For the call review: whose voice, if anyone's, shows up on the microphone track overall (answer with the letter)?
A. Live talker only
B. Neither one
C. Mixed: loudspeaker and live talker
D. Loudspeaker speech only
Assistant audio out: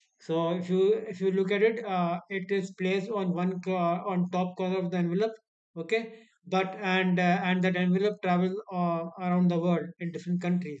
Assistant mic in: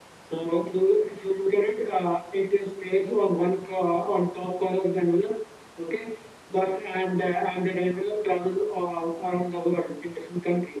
D